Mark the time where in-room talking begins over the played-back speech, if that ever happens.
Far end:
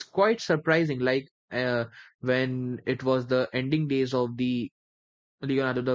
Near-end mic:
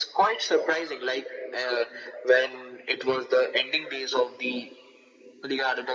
none

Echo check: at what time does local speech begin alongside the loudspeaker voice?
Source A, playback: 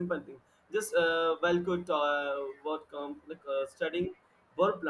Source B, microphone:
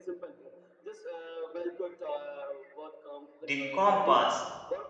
3.4 s

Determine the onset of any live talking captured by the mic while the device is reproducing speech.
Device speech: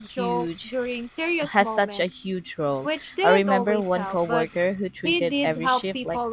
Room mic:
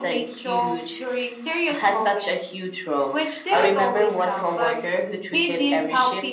none

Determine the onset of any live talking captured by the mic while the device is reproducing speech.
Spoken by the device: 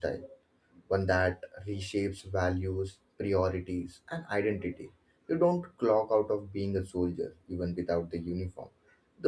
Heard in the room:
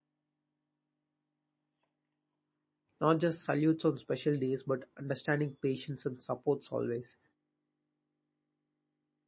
3.0 s

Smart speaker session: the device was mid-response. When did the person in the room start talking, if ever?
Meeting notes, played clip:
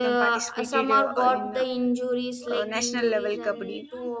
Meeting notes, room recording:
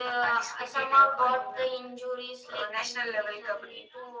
none

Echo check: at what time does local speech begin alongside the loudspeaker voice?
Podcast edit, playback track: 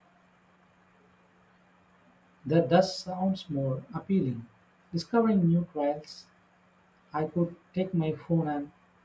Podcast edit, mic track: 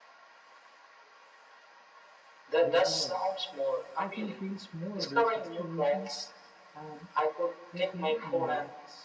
2.6 s

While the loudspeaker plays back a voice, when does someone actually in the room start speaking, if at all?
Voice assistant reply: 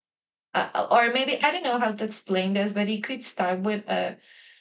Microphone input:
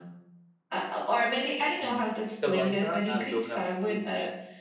1.8 s

